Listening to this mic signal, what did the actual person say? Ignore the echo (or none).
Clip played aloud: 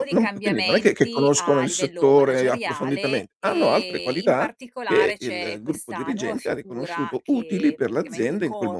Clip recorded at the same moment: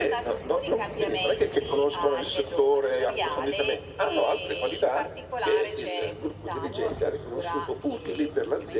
none